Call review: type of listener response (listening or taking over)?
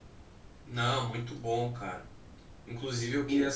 listening